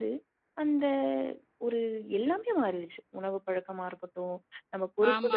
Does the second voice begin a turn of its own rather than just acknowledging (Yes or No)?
Yes